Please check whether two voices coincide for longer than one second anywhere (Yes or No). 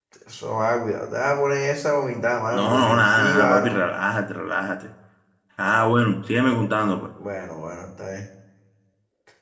Yes